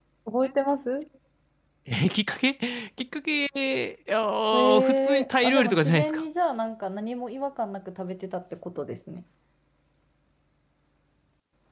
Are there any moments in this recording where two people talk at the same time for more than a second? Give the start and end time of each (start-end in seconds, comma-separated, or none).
4.5-6.2